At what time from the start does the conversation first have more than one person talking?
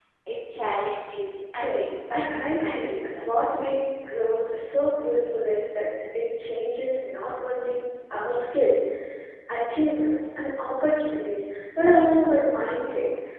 2 s

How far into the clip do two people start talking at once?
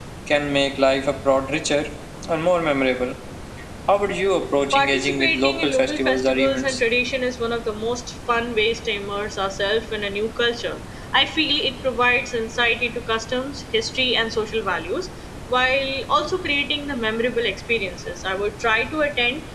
5 s

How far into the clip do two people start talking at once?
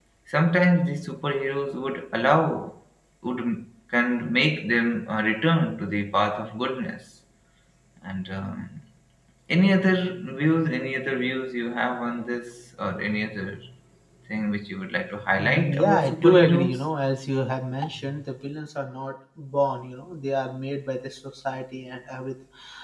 15 s

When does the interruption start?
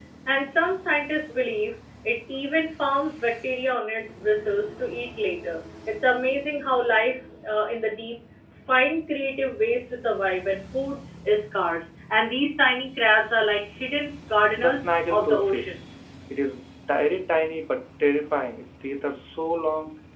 15 s

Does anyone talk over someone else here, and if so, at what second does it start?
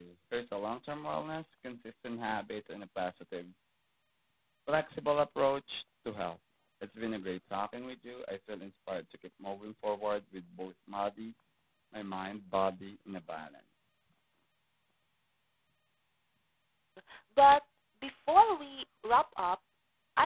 none

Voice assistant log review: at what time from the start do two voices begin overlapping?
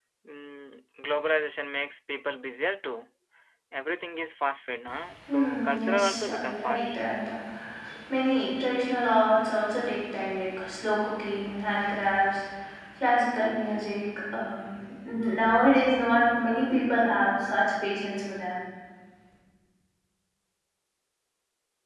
5 s

